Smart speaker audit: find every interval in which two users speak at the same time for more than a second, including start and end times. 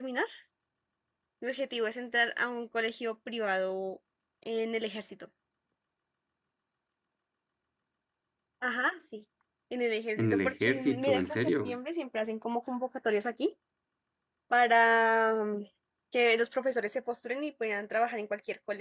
10.2-11.8

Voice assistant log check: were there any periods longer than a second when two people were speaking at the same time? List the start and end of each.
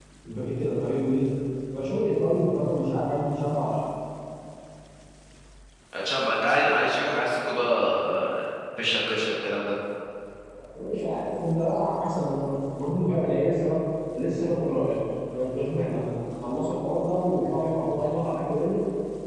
none

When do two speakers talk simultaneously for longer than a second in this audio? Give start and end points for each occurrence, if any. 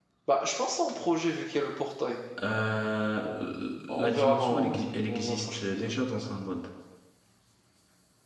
3.9-6.0

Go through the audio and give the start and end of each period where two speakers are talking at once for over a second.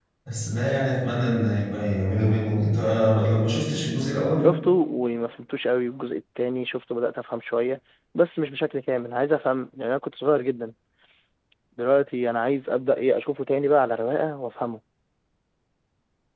none

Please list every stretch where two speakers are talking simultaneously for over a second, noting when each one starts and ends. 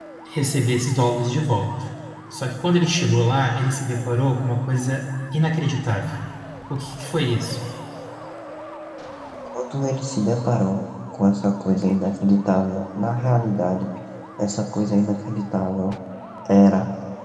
none

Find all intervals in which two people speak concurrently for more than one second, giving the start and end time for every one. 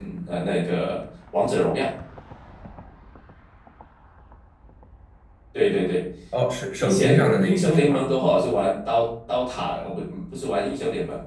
6.8-8.2

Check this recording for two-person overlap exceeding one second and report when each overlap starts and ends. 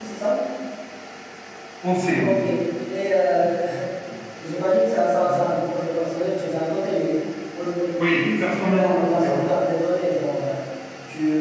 8.0-9.4

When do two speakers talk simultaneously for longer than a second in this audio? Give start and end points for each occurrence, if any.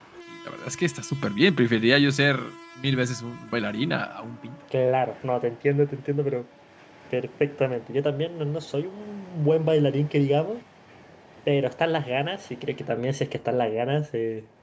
none

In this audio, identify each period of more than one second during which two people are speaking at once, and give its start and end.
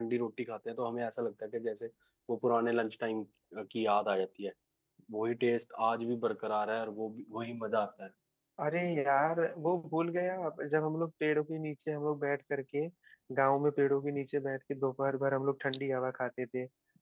none

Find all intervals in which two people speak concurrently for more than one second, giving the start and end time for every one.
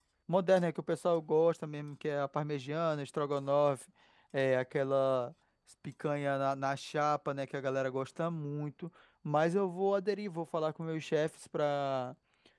none

